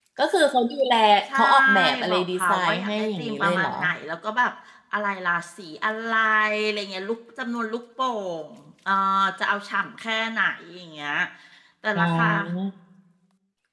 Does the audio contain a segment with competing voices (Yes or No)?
Yes